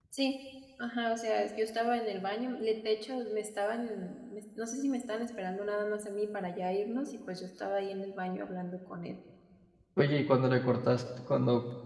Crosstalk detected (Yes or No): No